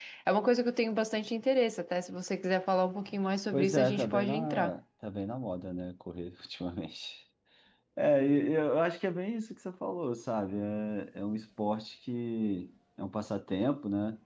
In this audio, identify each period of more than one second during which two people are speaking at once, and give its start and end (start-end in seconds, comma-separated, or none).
3.5-4.7